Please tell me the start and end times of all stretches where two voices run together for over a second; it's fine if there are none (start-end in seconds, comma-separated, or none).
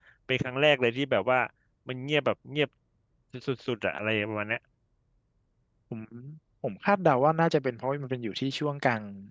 none